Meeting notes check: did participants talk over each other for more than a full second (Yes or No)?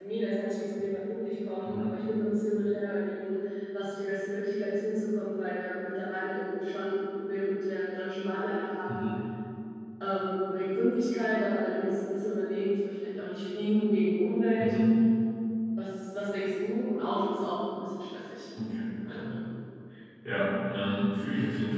No